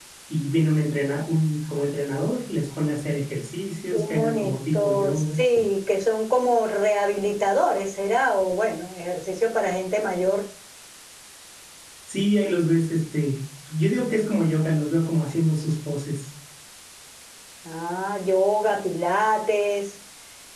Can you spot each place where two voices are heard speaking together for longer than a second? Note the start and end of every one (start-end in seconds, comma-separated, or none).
3.9-5.4